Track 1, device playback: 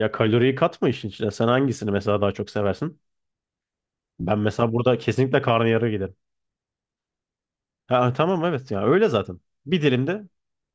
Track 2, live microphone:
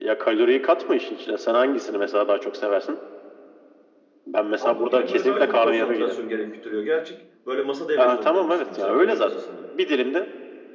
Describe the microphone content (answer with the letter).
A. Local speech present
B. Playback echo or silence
A